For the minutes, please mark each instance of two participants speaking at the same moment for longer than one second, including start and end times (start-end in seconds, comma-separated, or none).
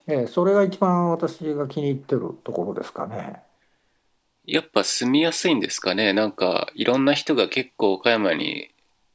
none